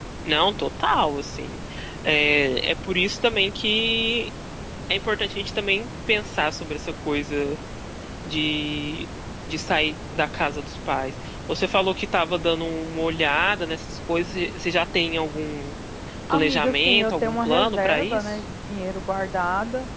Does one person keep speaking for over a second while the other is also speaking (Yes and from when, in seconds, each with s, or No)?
Yes, from 16.3 s